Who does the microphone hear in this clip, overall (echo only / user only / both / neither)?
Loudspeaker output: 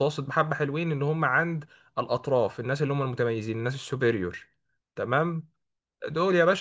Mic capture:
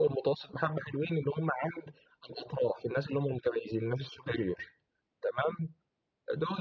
echo only